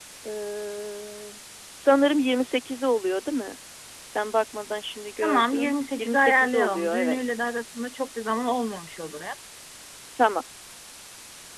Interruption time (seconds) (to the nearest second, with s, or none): 5 s